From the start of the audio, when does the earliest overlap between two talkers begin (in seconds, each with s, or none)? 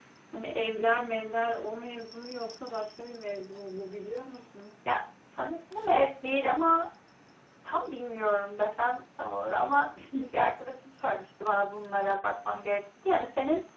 none